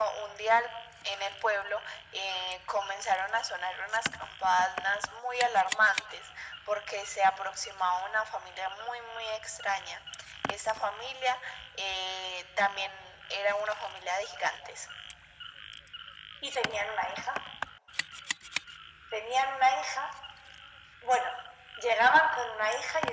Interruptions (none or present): none